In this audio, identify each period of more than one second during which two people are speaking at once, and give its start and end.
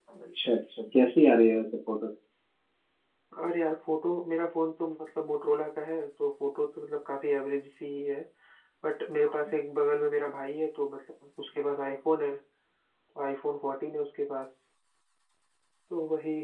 none

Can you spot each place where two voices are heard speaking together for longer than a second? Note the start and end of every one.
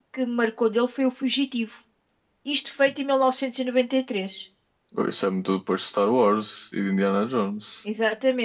none

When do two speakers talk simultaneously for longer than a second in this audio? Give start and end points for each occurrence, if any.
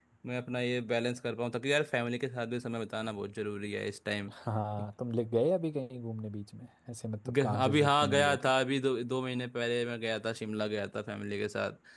7.3-8.5

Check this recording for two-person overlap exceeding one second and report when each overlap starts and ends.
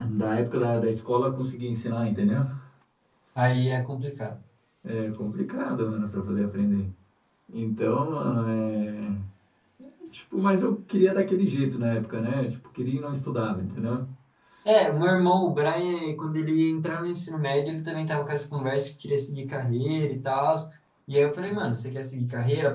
none

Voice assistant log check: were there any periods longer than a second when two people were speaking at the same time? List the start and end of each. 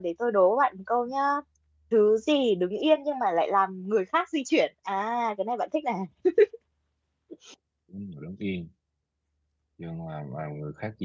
none

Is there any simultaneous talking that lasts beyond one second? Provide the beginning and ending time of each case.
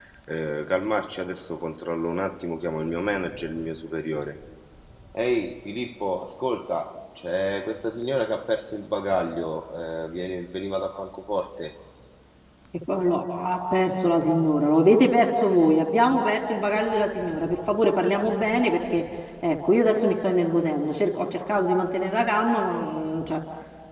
none

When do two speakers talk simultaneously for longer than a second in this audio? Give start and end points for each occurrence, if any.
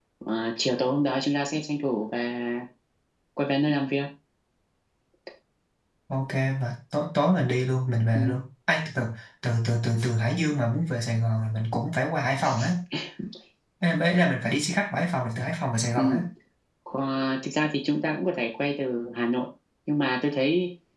none

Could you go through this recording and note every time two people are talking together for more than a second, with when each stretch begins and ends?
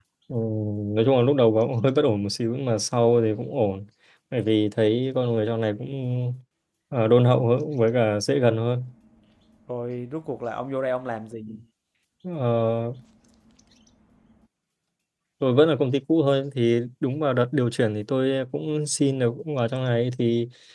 none

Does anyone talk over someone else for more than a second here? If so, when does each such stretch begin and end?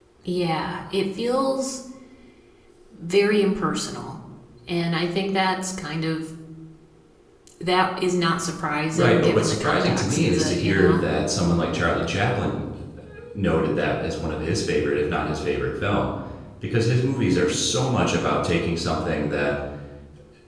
8.9-11.0

